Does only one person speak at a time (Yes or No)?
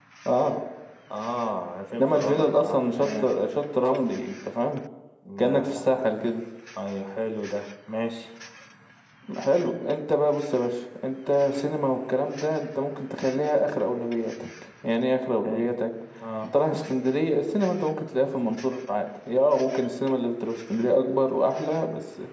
No